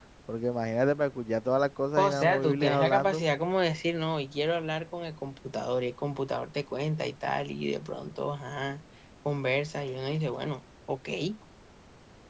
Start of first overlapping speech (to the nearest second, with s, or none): 2 s